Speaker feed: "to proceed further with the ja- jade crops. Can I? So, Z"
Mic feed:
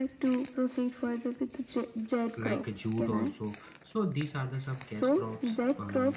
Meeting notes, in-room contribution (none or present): present